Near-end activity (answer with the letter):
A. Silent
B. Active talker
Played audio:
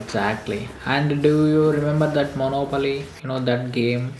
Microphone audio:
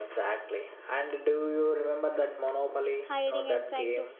B